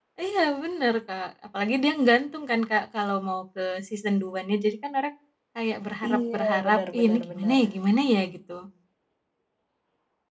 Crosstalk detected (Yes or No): Yes